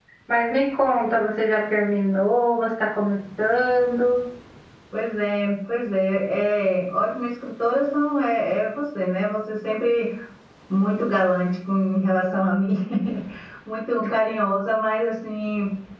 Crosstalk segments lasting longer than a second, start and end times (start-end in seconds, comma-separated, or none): none